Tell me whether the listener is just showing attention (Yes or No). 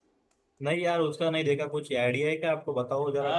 No